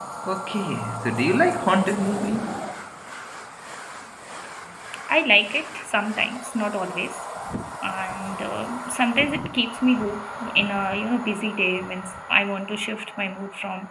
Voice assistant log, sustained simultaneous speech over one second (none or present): none